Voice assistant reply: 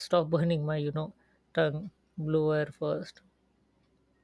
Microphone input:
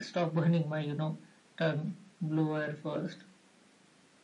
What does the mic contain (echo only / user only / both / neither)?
echo only